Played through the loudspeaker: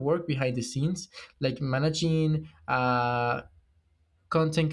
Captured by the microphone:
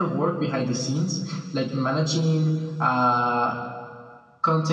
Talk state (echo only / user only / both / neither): echo only